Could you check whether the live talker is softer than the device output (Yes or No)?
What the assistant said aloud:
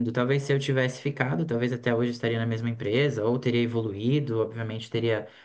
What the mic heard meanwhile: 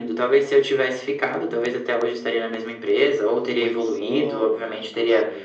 Yes